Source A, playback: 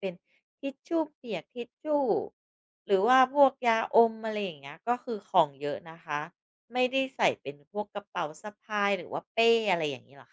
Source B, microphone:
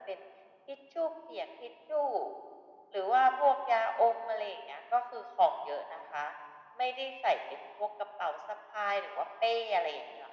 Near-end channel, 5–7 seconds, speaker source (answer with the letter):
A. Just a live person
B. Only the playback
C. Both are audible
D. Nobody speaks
B